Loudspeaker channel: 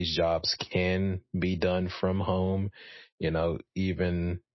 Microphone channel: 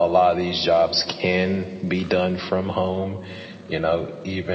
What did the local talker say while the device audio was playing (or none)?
none